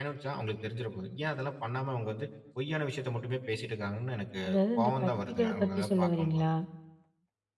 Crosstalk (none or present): present